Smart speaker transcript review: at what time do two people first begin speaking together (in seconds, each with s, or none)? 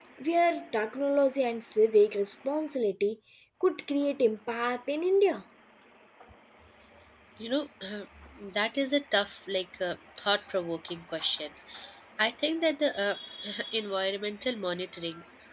none